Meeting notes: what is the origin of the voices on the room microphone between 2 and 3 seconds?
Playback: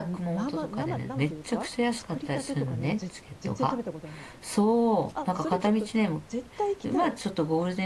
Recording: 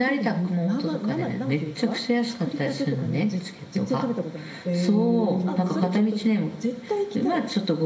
echo only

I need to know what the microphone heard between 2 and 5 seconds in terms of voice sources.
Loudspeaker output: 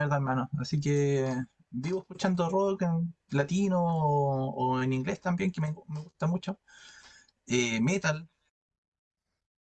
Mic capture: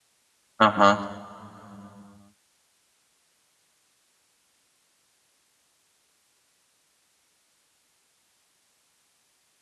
neither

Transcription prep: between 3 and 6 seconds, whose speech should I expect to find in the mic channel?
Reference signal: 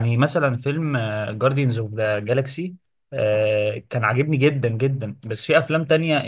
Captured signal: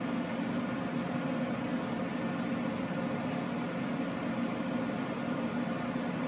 neither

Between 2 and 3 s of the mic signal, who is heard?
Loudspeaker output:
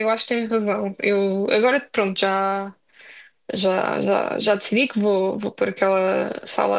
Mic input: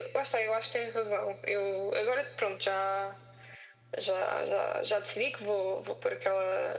echo only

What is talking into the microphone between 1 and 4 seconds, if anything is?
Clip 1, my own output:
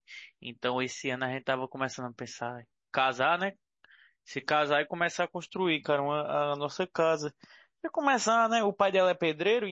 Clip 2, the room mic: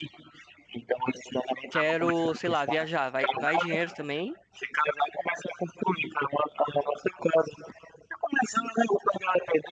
both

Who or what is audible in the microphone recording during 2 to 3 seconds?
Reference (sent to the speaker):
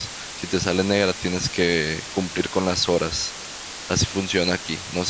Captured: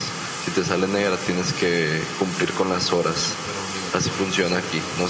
echo only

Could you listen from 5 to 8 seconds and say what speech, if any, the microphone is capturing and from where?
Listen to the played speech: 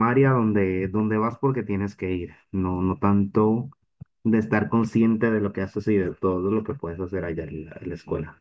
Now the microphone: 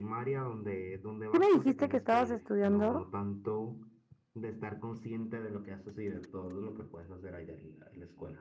echo only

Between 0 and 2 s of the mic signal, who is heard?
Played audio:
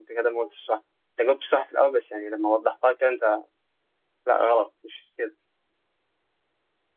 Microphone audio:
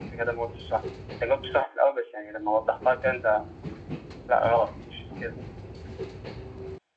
echo only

